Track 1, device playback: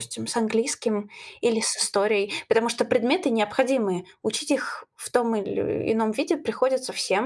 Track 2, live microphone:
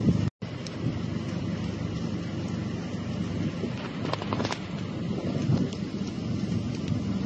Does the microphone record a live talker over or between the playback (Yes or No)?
No